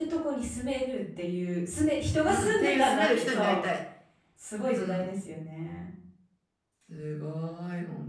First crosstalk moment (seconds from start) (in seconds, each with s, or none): 2.3 s